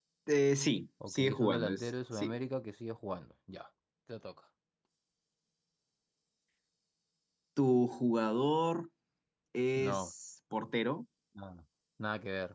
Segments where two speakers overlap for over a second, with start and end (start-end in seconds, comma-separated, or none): 1.1-2.4